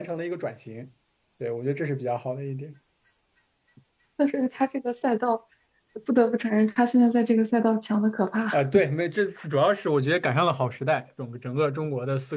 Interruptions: none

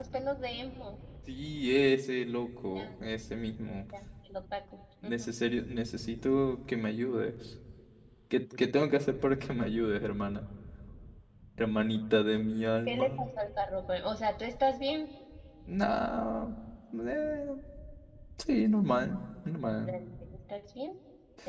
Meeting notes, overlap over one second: none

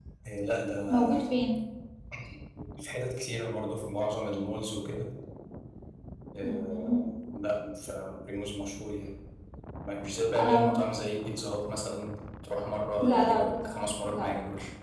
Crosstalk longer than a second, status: present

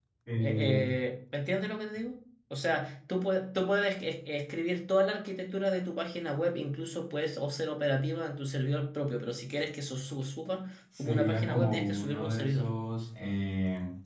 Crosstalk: present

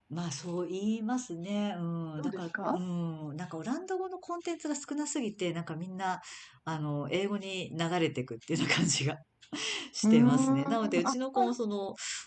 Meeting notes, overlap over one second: present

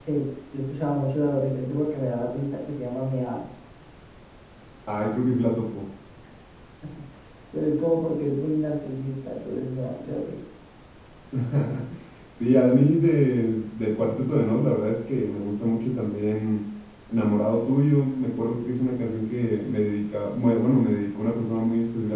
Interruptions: none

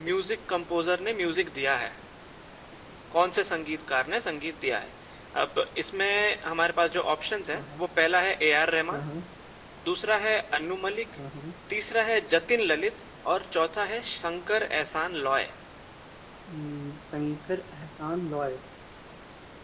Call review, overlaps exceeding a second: none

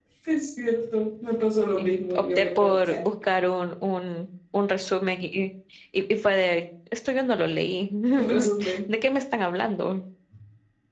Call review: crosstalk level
present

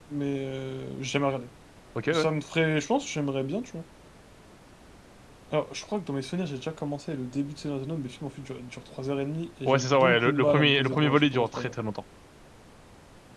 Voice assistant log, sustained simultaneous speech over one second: present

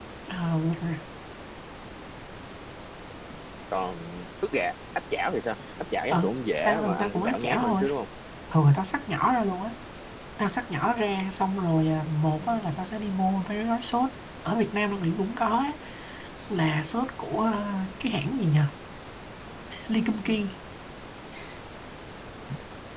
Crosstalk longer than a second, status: present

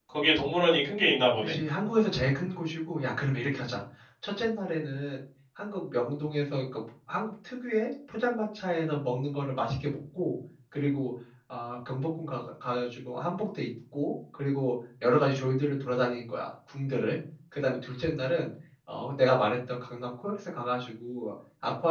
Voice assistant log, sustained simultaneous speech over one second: none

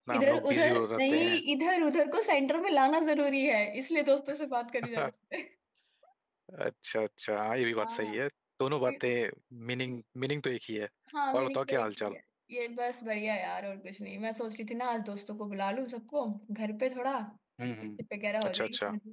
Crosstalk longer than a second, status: present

